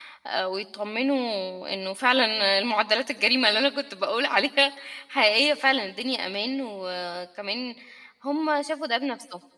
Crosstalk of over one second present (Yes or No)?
No